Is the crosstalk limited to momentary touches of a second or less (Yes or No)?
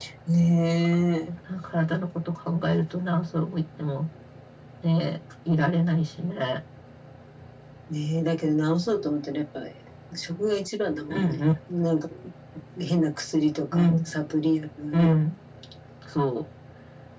Yes